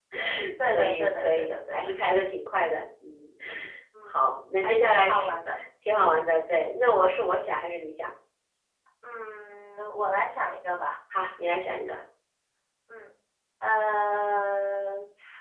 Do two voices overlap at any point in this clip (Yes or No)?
Yes